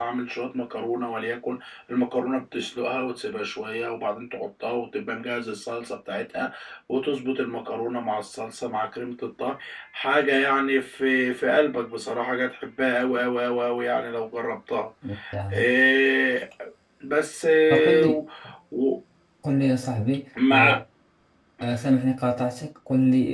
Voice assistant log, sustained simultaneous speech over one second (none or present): none